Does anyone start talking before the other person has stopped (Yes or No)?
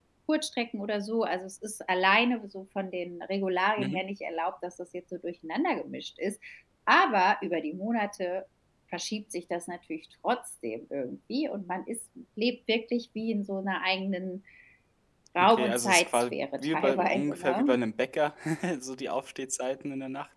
Yes